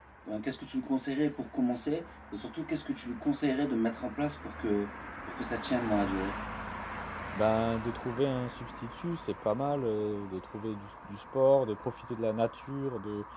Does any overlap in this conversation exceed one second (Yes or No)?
No